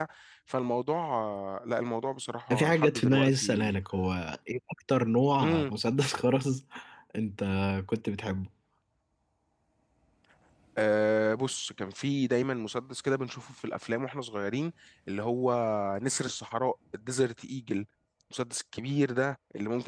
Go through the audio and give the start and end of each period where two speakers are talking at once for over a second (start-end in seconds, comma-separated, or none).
2.5-3.8